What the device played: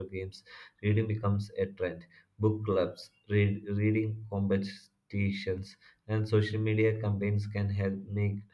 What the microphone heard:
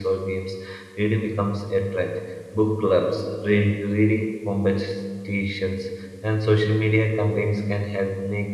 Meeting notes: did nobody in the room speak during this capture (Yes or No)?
Yes